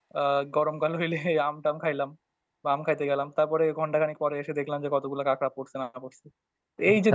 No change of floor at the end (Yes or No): Yes